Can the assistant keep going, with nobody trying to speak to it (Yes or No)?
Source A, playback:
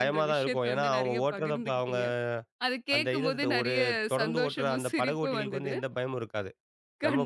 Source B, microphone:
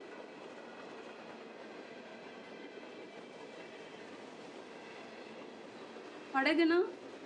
No